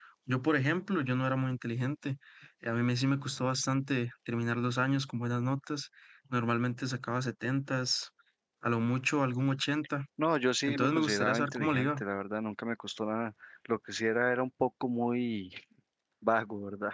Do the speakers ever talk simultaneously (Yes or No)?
Yes